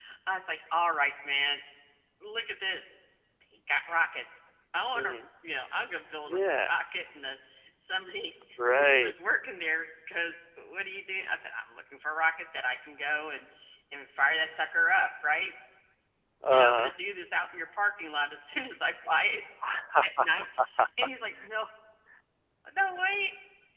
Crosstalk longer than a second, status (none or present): none